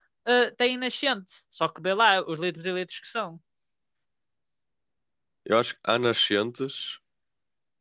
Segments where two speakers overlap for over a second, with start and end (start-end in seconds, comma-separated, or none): none